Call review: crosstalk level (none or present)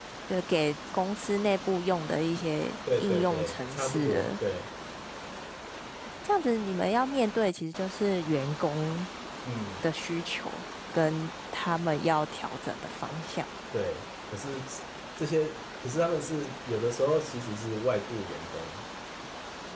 present